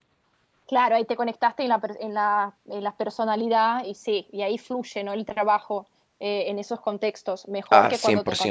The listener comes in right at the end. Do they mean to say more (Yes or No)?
No